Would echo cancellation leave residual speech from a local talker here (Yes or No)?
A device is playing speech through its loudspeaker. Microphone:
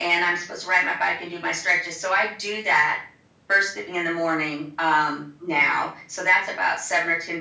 No